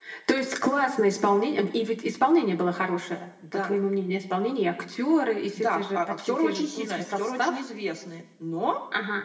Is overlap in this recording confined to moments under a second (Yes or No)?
No